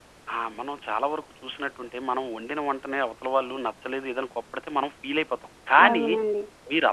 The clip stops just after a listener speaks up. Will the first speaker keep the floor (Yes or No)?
Yes